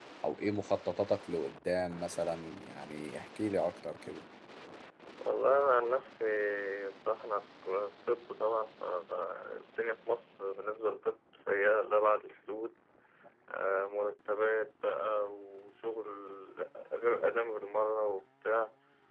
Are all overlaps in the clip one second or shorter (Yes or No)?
Yes